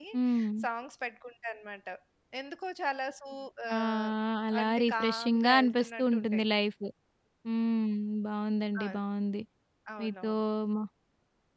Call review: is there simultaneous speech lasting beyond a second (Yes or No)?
Yes